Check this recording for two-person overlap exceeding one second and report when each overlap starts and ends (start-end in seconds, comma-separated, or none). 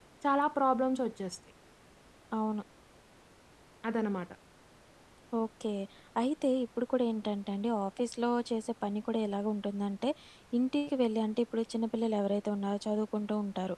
none